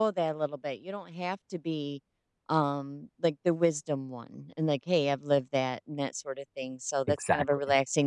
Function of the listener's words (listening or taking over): listening